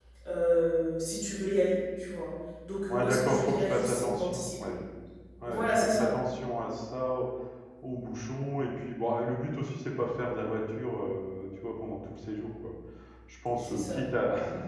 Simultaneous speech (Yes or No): Yes